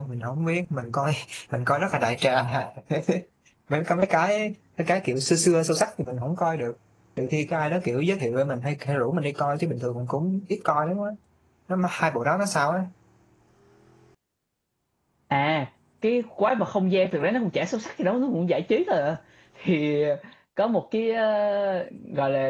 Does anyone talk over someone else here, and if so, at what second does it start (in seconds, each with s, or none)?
none